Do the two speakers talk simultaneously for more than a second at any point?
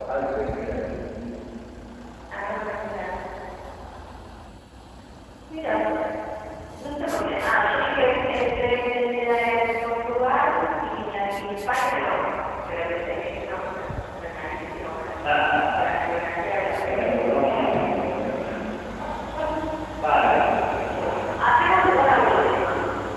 Yes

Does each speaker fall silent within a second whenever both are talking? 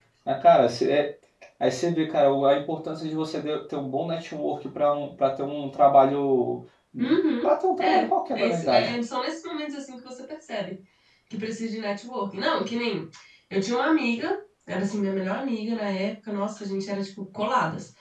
No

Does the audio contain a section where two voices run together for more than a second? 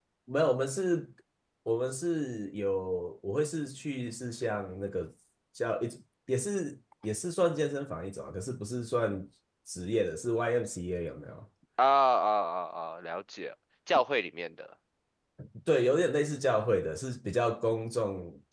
No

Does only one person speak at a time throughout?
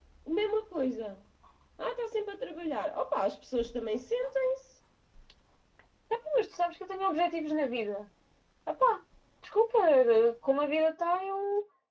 Yes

